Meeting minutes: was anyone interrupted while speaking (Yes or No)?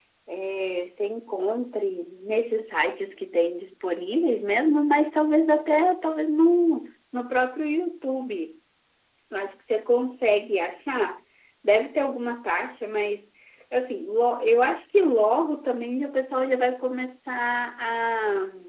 No